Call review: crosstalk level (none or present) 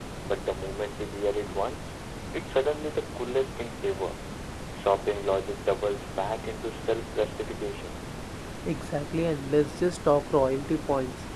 none